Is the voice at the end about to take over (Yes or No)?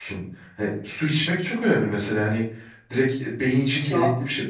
No